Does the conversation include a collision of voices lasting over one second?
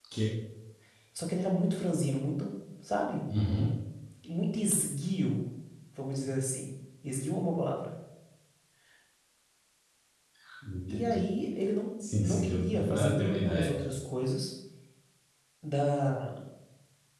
Yes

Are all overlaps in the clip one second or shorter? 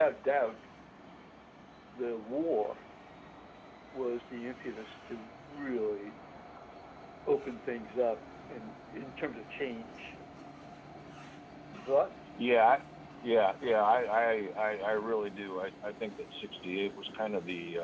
Yes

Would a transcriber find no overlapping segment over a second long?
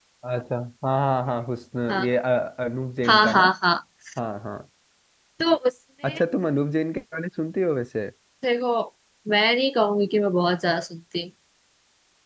Yes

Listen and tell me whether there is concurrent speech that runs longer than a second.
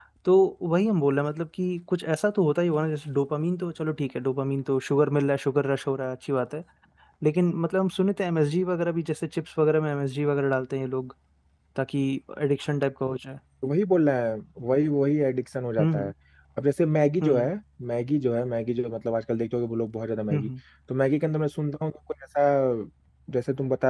No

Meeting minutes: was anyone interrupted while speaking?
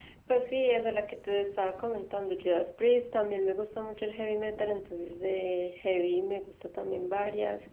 No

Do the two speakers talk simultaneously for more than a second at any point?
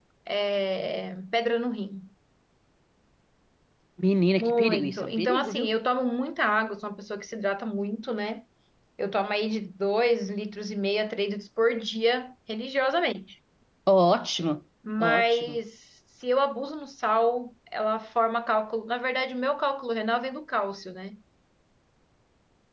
Yes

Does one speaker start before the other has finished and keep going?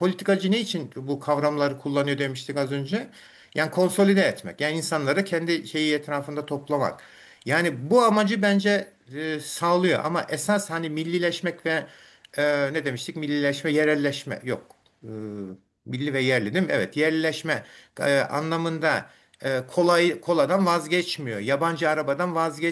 No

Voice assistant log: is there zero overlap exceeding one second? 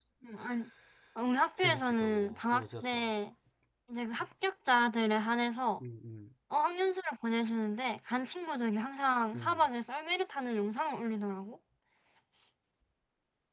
No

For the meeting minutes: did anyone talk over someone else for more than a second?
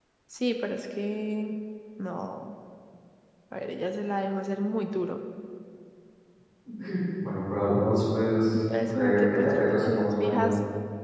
Yes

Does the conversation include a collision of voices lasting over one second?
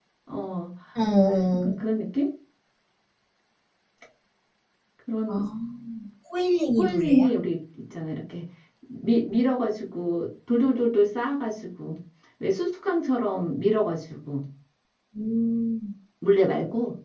No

